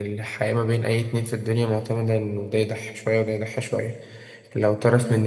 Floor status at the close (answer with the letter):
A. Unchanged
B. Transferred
A